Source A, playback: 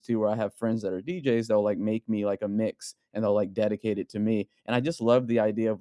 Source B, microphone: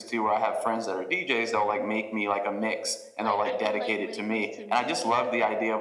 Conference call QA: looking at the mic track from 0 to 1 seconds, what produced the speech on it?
echo only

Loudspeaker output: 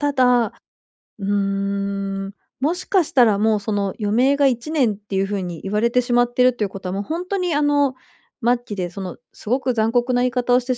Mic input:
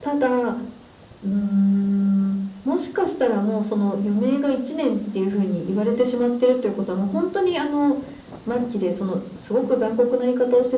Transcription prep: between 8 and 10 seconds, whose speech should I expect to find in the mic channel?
echo only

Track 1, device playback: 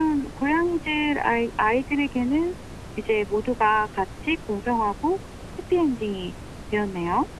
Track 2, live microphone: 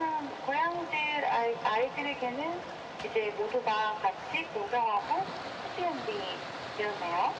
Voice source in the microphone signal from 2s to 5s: echo only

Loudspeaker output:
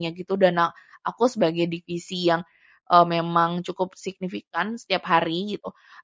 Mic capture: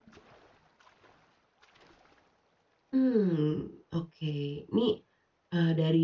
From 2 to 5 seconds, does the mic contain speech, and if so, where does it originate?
user only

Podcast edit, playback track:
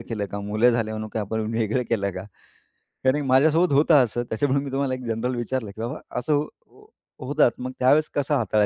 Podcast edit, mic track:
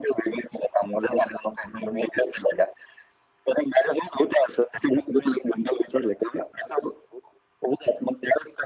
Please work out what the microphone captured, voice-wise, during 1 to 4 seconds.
echo only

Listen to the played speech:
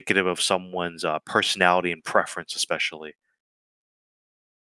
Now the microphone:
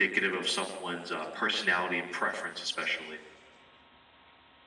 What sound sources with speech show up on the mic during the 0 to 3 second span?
echo only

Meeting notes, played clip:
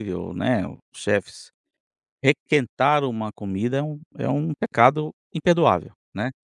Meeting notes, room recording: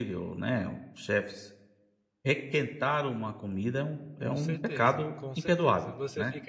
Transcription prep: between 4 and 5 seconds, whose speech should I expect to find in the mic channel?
both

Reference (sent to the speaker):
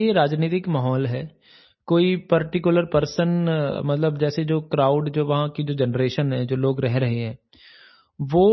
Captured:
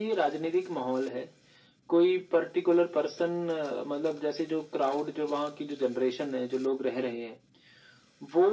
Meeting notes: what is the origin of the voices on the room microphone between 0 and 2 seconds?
echo only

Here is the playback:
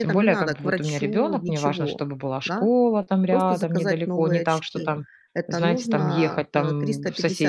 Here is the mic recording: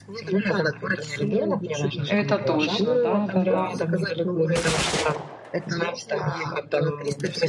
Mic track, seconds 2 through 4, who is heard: both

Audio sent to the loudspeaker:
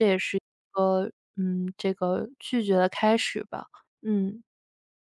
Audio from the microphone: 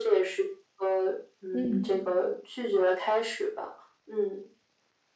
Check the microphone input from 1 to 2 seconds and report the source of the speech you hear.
both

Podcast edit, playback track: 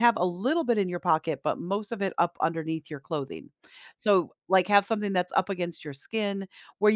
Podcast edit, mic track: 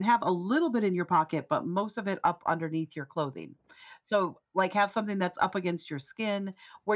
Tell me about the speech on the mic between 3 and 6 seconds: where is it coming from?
echo only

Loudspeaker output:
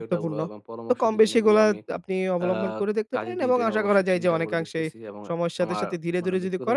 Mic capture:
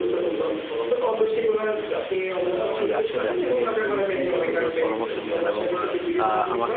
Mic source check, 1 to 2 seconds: echo only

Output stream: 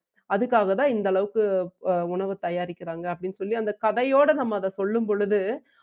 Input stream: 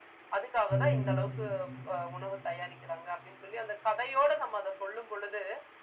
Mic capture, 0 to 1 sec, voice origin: both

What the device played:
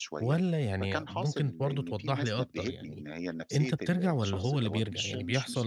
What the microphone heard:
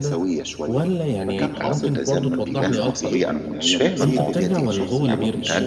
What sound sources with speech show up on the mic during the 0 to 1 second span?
echo only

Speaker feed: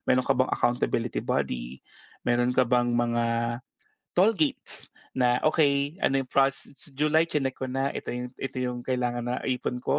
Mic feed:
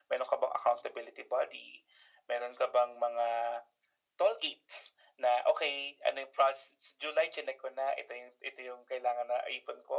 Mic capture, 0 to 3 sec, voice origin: echo only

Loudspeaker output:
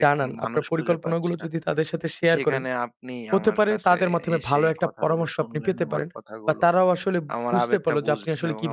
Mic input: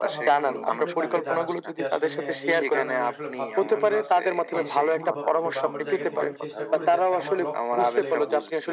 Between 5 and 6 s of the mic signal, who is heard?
both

